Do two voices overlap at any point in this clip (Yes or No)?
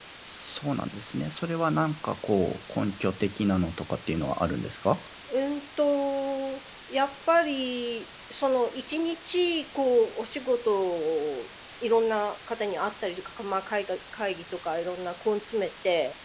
No